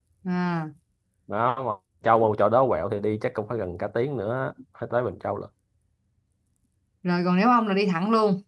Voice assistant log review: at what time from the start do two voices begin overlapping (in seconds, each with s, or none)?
none